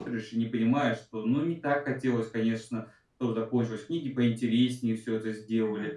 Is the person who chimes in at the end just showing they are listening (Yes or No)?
No